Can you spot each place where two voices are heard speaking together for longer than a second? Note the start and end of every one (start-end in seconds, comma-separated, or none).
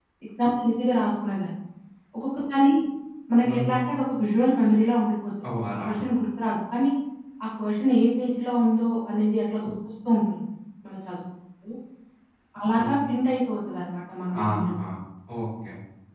none